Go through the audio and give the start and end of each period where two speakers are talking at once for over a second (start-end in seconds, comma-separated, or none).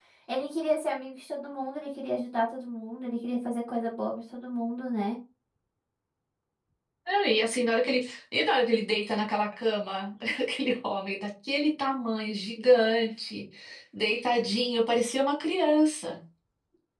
none